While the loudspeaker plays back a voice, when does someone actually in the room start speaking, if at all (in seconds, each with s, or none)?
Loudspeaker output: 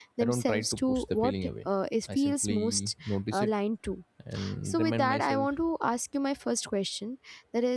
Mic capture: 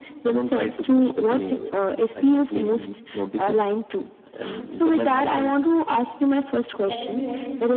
6.8 s